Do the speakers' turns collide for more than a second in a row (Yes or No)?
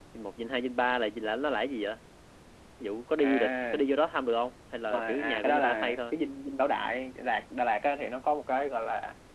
Yes